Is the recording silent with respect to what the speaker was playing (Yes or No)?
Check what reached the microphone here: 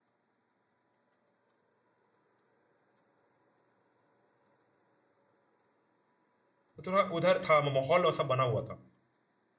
Yes